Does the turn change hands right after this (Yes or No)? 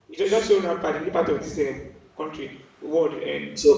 Yes